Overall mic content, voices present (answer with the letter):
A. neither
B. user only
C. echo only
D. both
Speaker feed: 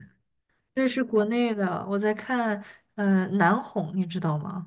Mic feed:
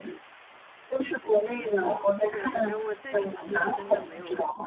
D